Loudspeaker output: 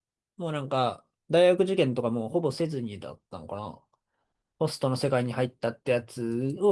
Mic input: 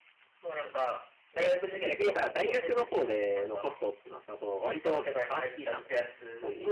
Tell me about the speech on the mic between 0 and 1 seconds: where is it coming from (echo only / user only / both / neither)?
echo only